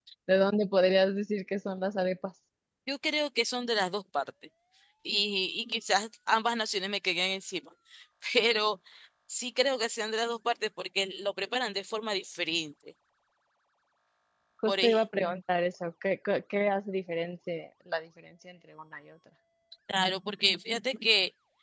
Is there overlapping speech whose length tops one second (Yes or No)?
No